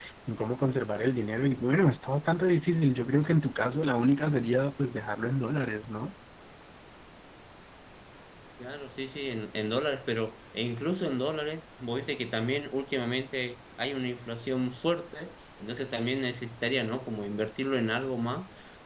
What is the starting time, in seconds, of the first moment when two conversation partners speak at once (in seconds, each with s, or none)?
none